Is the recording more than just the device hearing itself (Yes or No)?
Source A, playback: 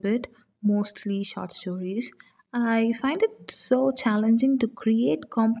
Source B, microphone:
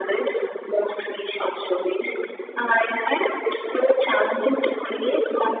No